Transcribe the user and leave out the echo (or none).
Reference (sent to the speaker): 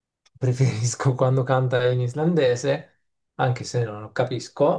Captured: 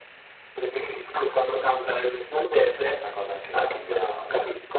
C'è questa cosa anche con eh, lo-